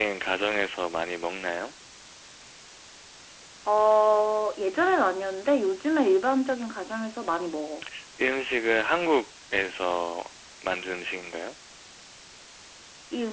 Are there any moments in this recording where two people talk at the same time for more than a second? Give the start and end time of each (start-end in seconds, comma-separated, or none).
none